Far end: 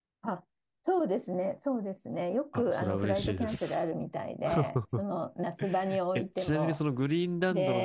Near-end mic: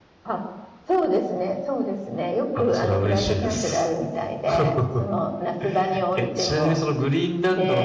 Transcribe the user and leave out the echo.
none

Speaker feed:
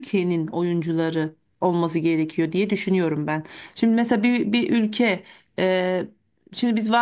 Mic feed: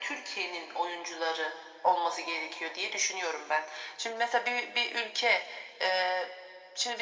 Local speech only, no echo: none

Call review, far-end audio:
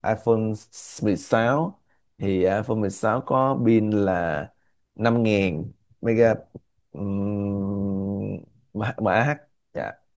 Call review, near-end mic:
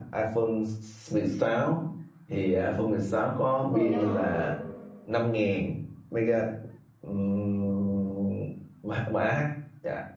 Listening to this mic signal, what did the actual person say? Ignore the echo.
vừa trong lòng bàn tay

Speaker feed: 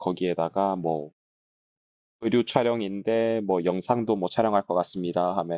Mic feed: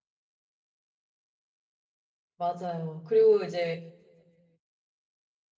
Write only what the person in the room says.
맞아요. 그리고 이제

